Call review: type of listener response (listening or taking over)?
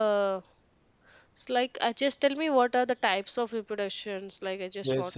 taking over